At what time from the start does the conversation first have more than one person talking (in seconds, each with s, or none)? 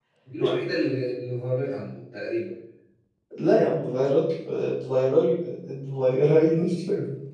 none